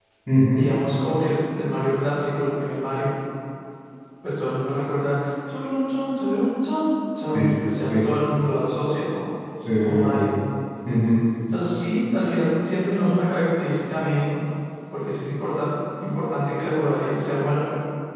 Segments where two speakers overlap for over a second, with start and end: none

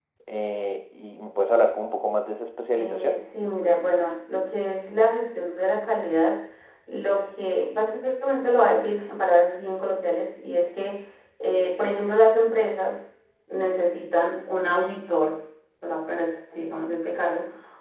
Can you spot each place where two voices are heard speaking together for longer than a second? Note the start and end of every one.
none

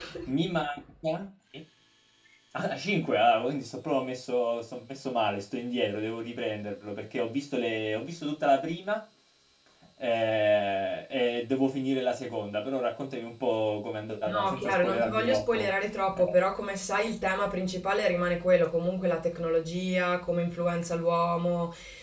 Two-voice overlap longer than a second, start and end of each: 14.3-15.7

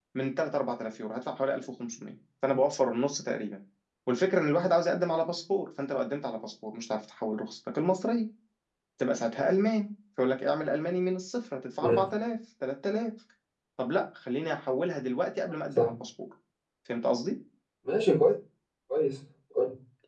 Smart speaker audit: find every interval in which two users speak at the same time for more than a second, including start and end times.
none

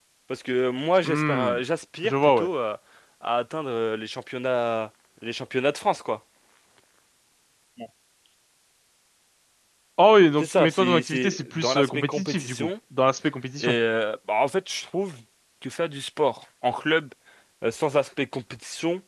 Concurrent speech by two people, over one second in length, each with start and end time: 10.4-12.7

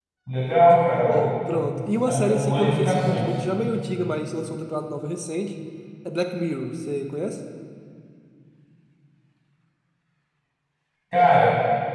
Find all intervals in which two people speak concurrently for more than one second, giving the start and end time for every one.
2.1-3.3

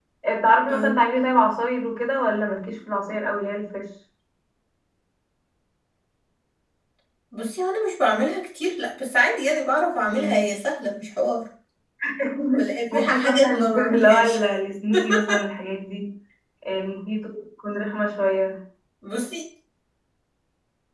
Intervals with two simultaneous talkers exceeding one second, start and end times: 12.9-14.4

